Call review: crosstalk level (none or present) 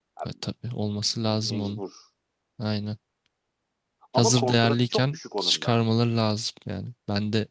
present